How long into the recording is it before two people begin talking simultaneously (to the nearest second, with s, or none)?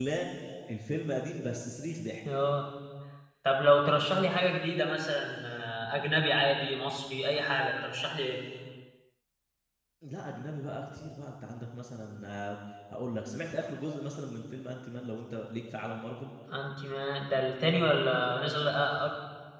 none